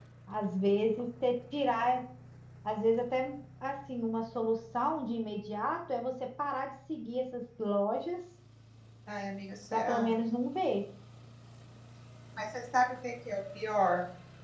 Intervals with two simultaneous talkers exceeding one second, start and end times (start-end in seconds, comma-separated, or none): none